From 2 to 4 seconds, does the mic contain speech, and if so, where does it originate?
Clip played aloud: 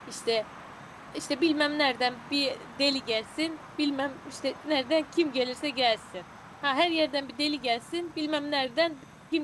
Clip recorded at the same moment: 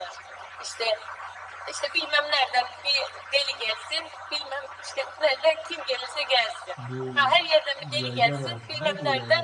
echo only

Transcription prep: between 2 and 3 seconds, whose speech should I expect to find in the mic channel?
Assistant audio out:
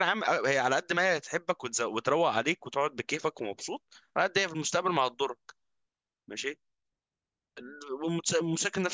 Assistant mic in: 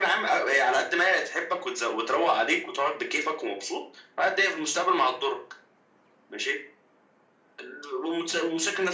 echo only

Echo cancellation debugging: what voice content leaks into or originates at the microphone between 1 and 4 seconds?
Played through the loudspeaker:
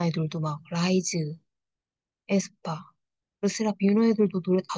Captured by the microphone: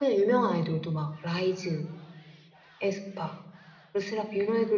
echo only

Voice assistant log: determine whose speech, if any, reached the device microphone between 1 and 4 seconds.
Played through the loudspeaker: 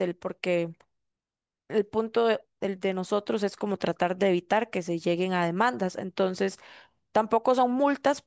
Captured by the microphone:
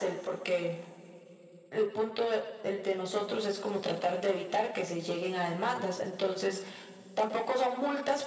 echo only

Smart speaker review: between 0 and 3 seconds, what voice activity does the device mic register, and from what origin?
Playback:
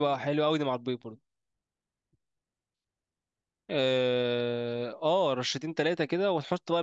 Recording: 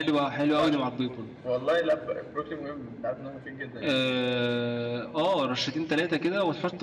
both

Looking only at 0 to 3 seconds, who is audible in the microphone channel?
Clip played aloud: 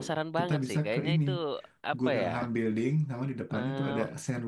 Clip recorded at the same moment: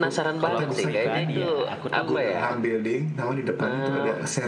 both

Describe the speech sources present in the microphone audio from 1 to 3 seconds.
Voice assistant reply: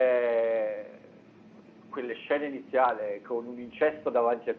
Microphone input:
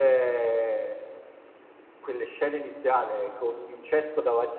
echo only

